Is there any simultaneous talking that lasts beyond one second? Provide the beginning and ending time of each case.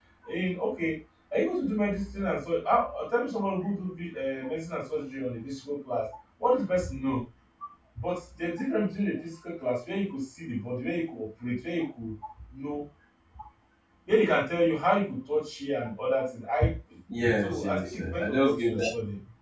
17.4-18.7

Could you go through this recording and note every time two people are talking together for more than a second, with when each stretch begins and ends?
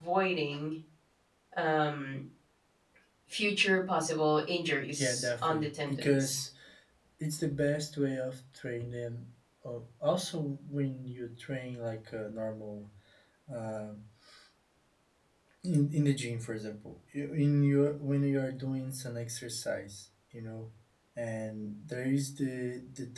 4.9-6.5

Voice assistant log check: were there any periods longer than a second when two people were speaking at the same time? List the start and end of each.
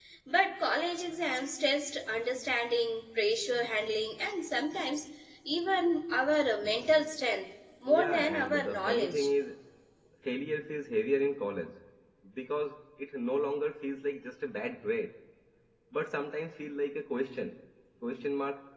7.9-9.3

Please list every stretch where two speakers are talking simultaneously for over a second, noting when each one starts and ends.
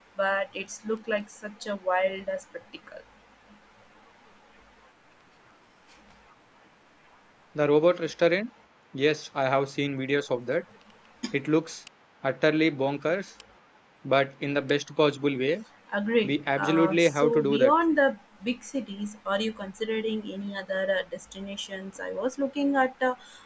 16.2-17.7

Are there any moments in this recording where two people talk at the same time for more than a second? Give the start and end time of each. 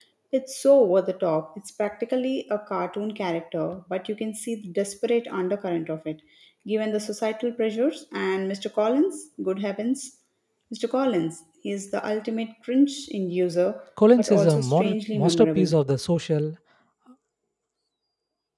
14.2-15.7

